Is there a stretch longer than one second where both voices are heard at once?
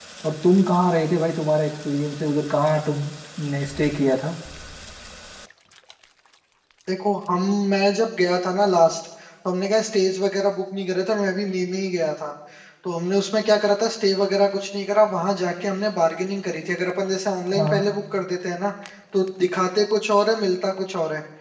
No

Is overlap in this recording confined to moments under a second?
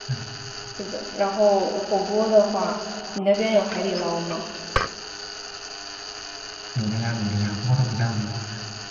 Yes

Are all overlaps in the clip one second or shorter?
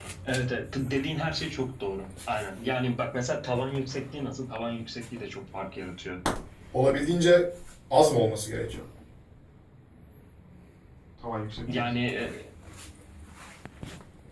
Yes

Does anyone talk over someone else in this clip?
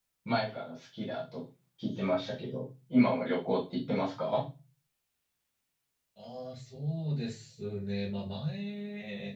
No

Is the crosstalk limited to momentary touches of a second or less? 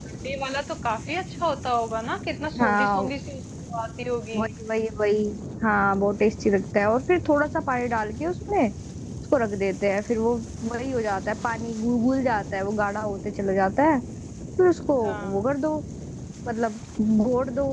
Yes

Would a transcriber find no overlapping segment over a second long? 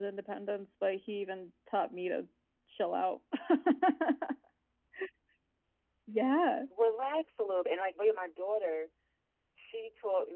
Yes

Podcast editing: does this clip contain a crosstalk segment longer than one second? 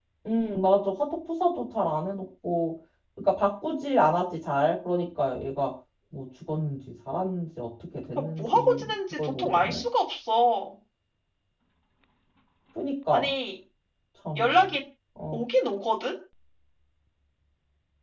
Yes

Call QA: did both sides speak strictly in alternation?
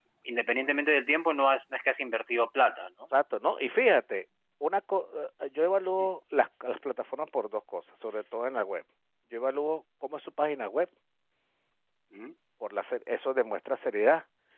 Yes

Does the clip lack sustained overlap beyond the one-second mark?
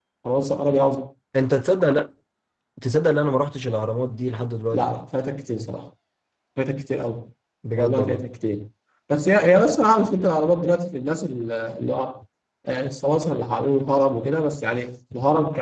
Yes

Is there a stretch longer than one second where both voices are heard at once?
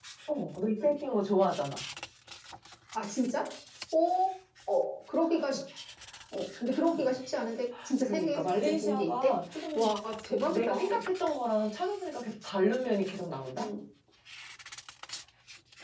Yes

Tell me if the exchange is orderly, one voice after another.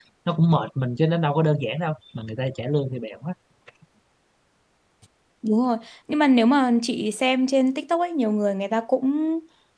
Yes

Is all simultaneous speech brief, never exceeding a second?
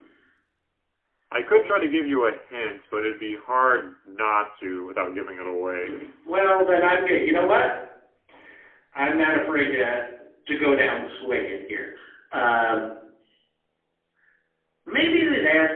Yes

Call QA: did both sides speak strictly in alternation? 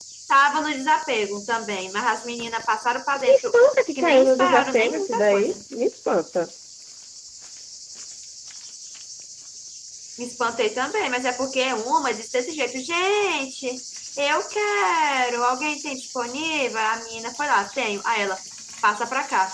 No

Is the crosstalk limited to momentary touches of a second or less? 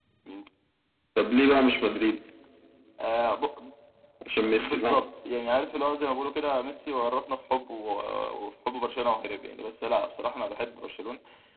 Yes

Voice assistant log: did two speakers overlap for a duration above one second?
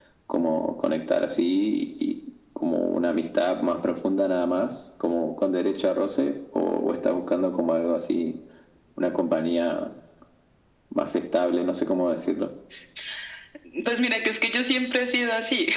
No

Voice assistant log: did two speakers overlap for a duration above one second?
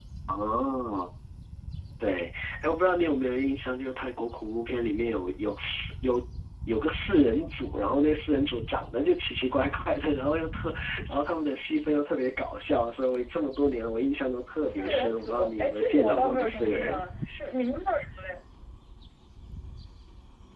Yes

